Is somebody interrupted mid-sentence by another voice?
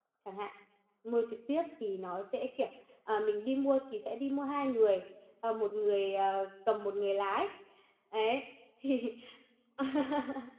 No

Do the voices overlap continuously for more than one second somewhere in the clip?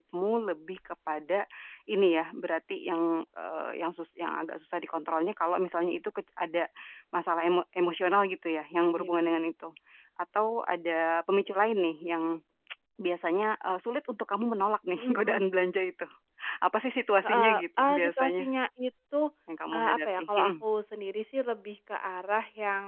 Yes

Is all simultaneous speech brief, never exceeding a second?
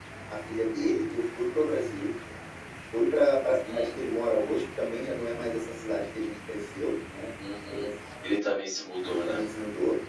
Yes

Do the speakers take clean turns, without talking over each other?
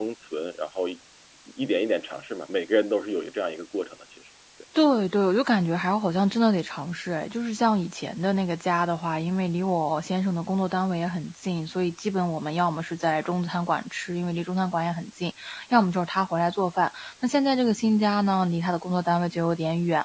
Yes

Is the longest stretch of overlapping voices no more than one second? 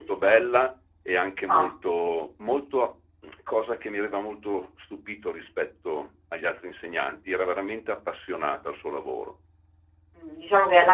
Yes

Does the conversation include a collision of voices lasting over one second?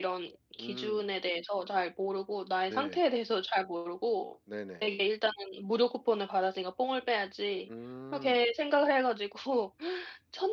No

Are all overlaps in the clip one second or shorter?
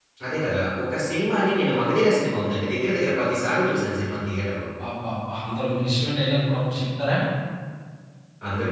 Yes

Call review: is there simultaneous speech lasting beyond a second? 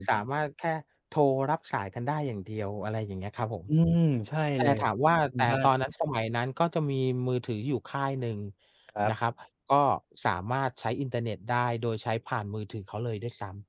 No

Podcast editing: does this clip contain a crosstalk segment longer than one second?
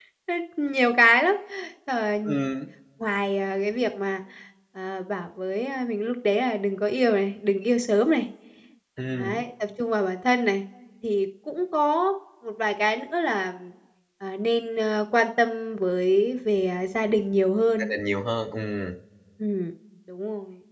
No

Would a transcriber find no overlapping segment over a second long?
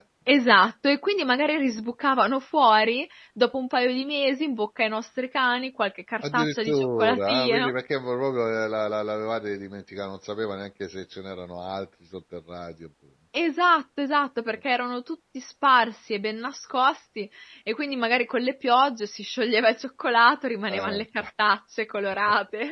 No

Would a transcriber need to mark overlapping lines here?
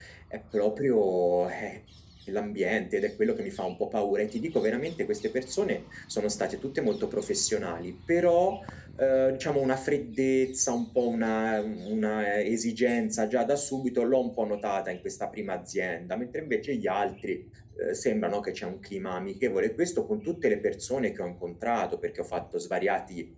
No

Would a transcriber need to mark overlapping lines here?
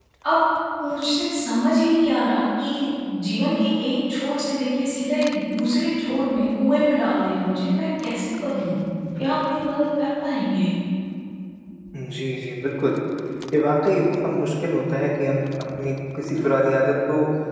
No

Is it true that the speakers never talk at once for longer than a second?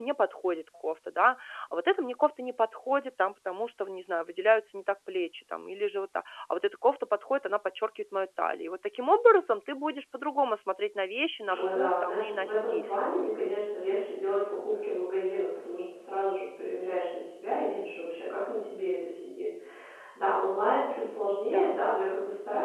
No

